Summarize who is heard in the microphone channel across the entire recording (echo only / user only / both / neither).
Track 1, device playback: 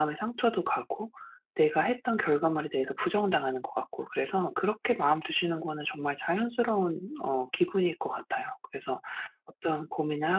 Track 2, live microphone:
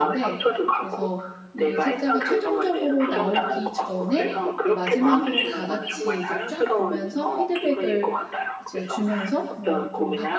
both